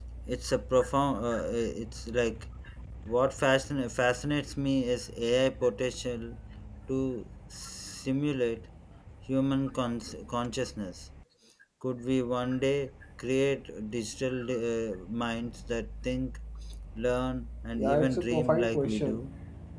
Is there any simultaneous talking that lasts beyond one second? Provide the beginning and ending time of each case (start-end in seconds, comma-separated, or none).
17.7-19.2